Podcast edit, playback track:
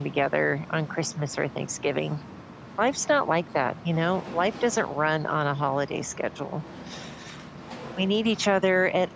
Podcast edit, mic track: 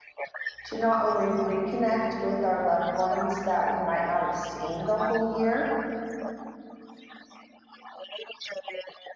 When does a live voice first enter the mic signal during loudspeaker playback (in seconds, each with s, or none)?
0.6 s